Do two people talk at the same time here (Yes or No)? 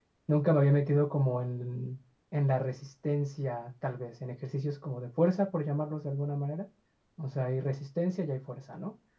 No